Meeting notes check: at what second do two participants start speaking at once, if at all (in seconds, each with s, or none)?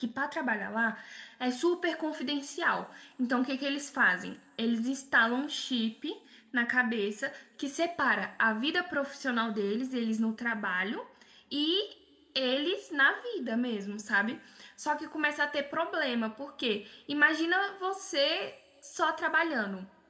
none